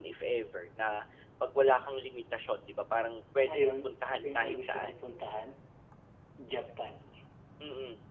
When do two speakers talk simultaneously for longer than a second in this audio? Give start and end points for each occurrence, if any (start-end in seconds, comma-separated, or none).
3.4-4.9